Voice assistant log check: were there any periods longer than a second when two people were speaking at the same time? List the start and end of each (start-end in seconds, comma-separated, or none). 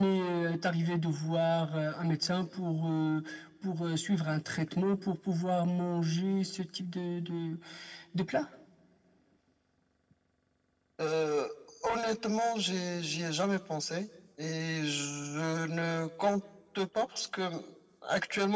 none